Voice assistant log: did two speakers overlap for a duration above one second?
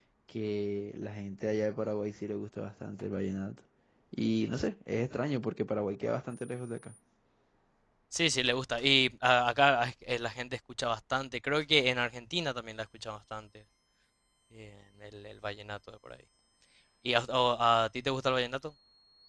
No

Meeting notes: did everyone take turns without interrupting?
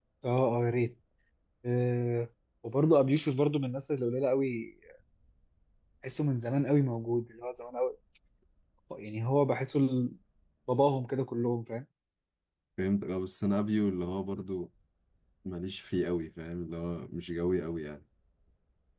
Yes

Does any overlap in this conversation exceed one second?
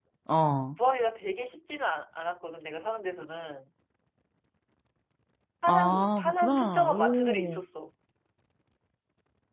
Yes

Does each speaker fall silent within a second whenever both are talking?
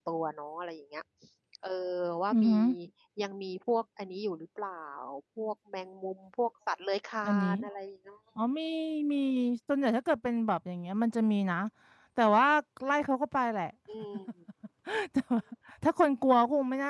Yes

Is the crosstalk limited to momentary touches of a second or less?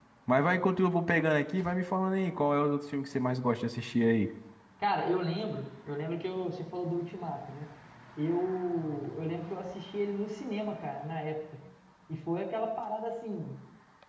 Yes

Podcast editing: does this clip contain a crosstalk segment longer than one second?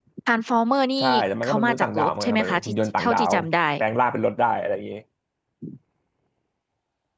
Yes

